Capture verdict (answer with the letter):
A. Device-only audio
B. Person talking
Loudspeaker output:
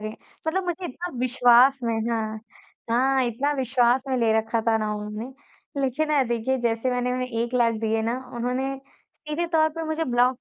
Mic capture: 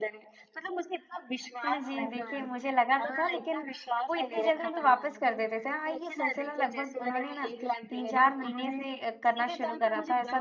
B